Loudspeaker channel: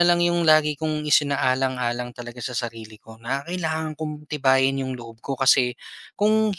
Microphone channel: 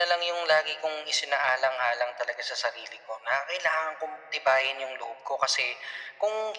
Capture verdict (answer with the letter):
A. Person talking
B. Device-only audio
B